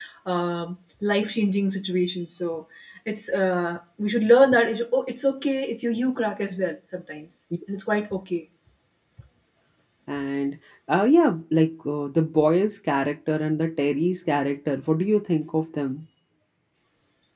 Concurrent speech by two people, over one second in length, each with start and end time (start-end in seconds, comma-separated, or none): none